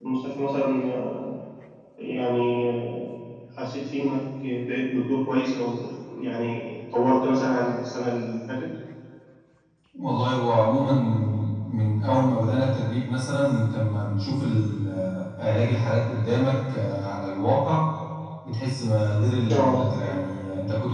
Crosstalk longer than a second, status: none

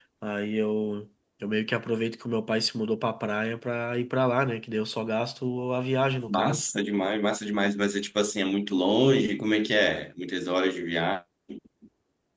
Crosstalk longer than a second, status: none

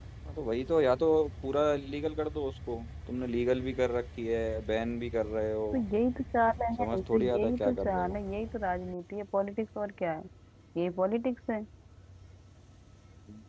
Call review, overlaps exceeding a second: present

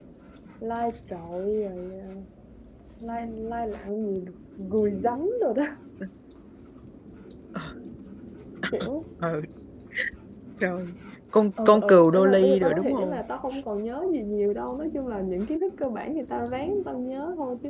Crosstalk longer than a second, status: present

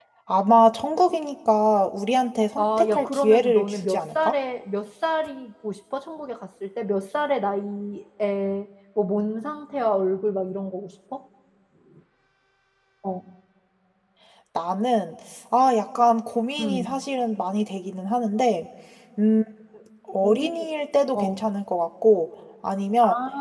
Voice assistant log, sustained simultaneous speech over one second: present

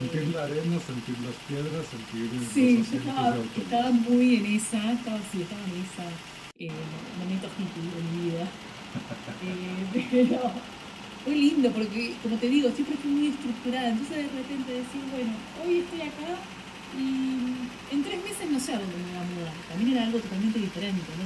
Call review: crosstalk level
present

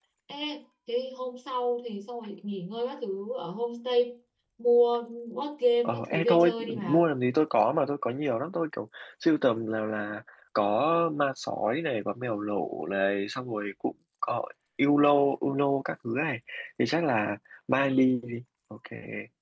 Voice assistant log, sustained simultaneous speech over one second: present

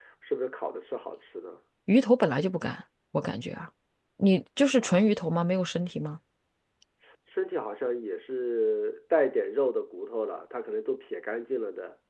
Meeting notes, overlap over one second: none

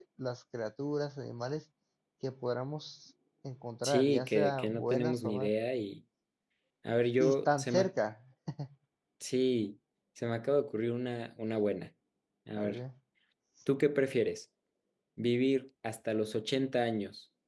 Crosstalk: present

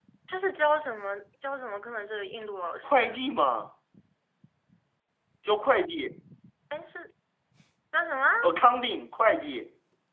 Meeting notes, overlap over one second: none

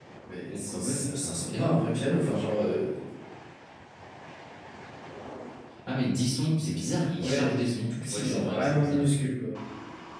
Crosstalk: present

